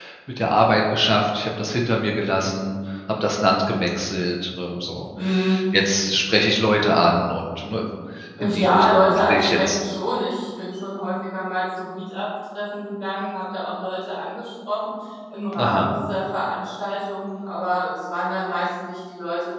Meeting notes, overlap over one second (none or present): present